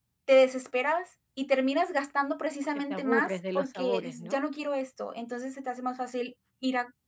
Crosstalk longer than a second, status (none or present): present